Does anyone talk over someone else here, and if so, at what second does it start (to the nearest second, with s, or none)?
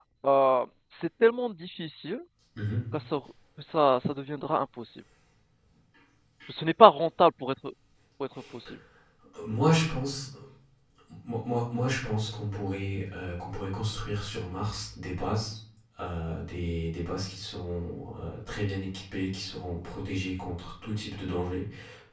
none